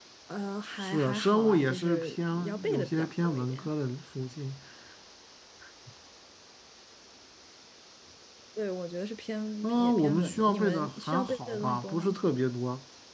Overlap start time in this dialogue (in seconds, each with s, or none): 0.8 s